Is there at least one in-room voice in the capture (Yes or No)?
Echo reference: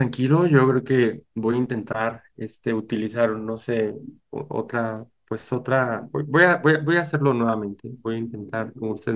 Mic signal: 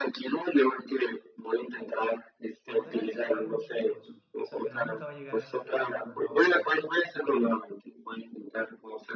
Yes